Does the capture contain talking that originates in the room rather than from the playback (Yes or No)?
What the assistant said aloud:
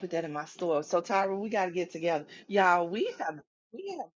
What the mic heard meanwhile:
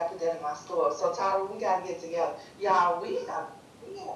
No